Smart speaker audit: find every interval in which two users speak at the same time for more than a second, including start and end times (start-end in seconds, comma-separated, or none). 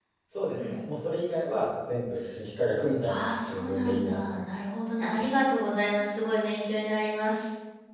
3.0-4.5